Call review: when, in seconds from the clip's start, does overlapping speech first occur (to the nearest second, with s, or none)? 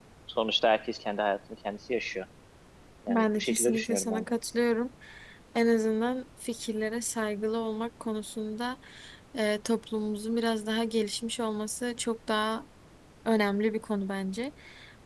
3 s